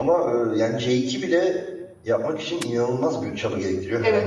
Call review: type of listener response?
taking over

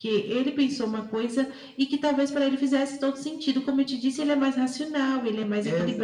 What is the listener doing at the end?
taking over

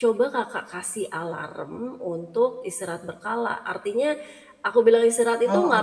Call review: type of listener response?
listening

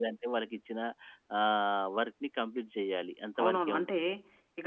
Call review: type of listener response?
taking over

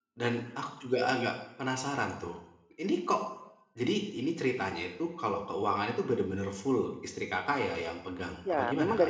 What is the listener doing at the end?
taking over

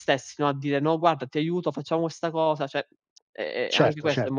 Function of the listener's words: taking over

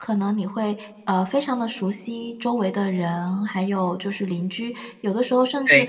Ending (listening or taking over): listening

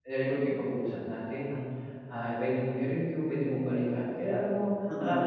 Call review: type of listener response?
listening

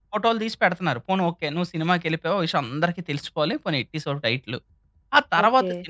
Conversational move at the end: listening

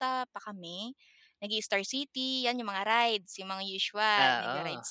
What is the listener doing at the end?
listening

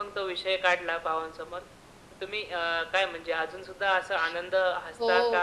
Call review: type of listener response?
taking over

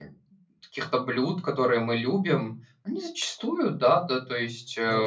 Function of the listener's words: listening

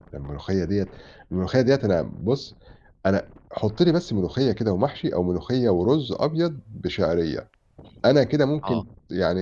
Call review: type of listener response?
listening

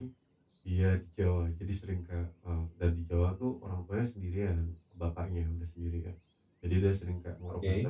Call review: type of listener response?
listening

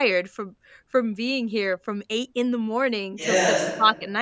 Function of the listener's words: listening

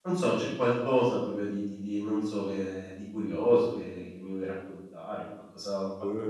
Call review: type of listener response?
taking over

